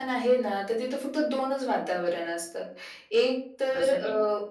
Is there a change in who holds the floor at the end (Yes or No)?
No